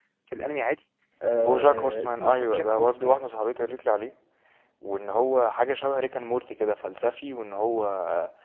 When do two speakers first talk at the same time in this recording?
1.4 s

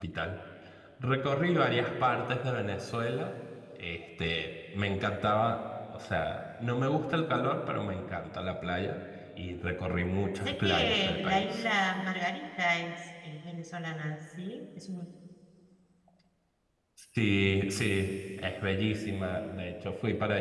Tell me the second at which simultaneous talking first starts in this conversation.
10.3 s

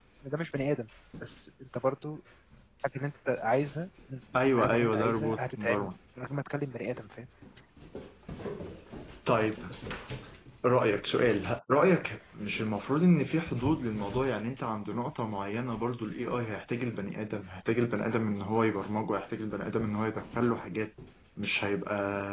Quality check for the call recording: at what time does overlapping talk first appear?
4.3 s

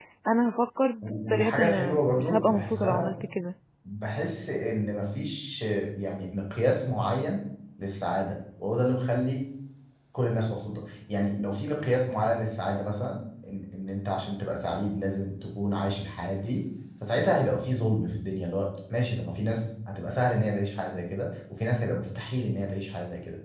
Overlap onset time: 1.0 s

